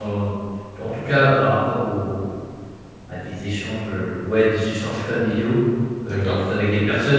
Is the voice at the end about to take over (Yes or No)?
No